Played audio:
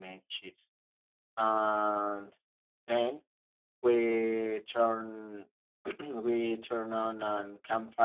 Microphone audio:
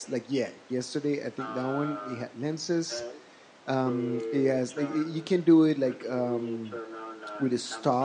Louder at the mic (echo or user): user